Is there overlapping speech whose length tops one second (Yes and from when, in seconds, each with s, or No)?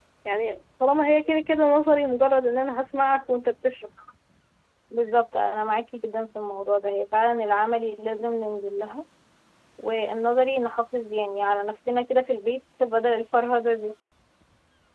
No